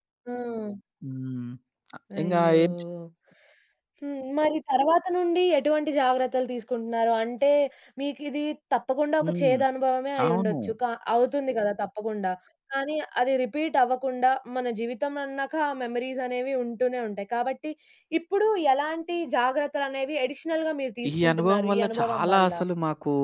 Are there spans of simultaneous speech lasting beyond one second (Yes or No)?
Yes